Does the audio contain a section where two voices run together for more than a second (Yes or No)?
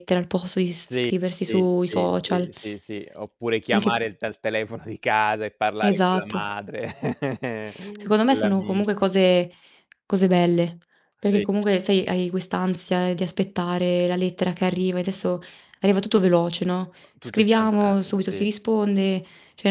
Yes